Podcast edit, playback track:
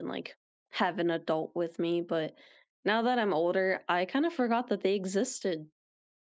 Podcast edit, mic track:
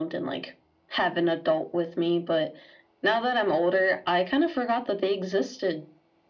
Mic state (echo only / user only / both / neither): echo only